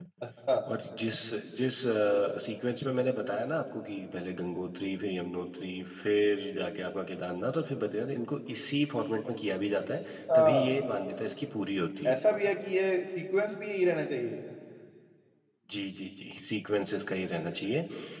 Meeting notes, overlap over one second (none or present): none